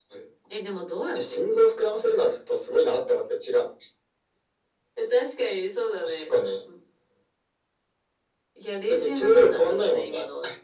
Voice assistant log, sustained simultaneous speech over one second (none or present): present